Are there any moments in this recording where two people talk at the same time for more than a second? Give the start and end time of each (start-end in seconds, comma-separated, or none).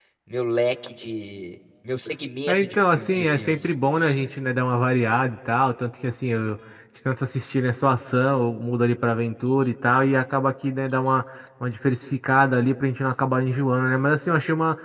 2.5-3.7